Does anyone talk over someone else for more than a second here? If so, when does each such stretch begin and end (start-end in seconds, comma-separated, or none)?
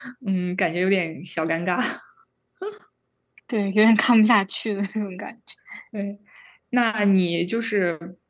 none